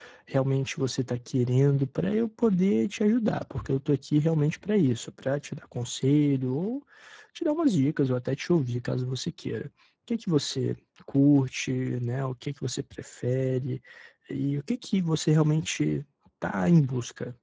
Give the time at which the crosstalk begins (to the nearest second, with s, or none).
none